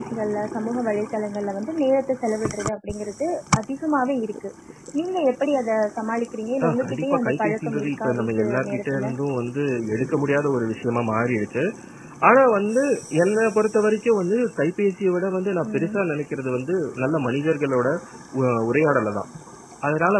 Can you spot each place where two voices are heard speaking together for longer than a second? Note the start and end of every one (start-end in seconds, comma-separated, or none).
6.7-9.1